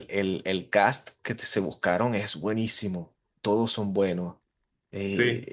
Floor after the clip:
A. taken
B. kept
B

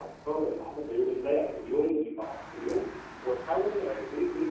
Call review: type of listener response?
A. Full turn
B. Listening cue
B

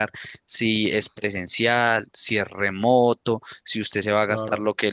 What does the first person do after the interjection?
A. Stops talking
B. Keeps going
B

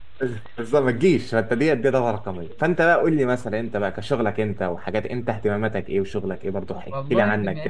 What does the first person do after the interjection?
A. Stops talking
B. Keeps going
A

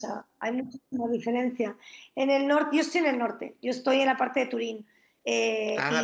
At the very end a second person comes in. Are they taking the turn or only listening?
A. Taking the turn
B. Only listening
B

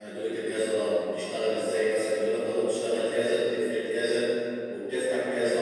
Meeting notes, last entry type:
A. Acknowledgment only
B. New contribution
A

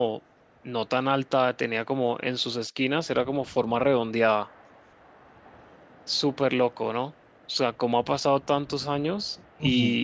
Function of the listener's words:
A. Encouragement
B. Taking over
A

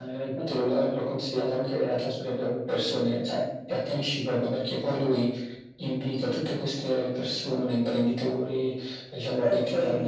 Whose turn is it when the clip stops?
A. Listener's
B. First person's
B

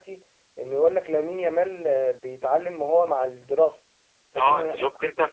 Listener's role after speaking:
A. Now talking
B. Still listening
A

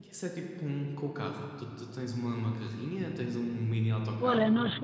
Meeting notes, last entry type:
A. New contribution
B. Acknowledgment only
A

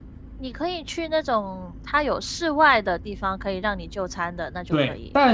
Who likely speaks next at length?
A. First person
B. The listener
B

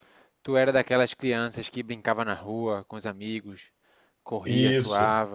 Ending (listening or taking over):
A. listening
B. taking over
B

